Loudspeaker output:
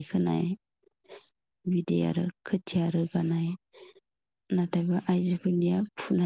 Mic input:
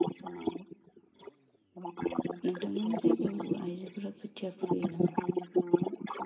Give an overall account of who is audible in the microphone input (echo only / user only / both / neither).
both